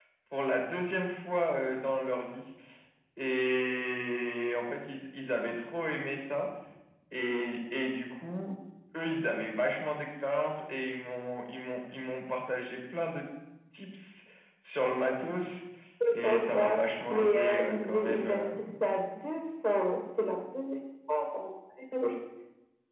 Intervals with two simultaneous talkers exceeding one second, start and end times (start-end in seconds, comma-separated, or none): 16.1-18.5